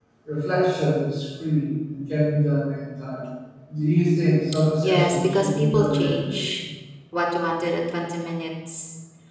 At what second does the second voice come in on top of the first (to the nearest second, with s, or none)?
5 s